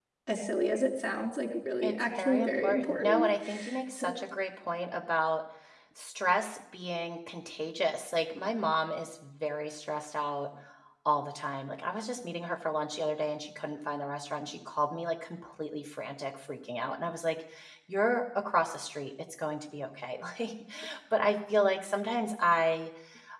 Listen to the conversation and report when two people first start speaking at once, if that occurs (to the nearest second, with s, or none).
2 s